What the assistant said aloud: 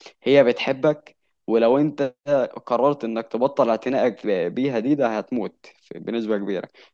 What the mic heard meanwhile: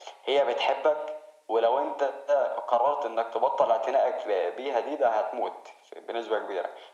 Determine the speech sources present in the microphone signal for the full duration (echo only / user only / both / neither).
echo only